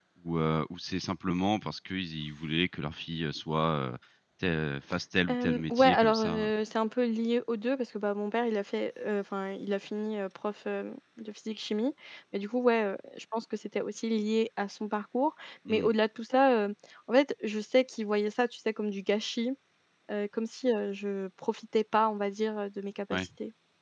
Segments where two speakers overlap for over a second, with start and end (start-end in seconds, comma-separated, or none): 5.3-6.5